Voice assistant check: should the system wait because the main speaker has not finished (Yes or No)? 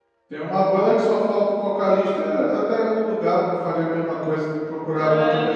No